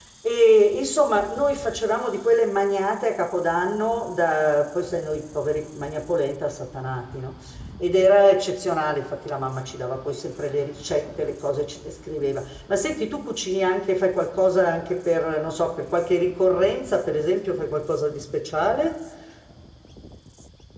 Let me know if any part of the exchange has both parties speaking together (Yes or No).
No